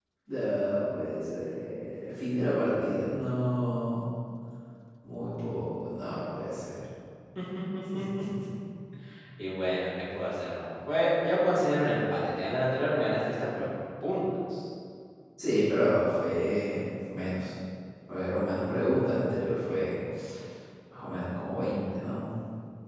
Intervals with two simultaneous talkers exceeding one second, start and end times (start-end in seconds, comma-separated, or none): none